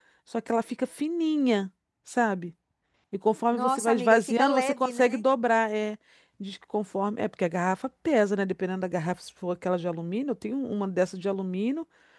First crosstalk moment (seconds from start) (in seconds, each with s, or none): 3.5 s